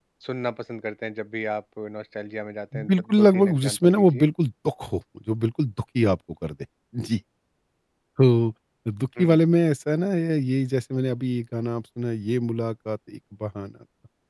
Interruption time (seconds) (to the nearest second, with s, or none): 3 s